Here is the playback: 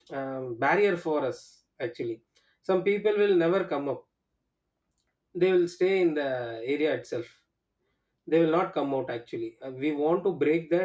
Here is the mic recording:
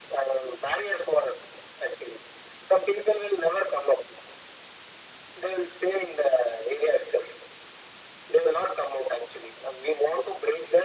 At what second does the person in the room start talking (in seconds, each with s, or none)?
none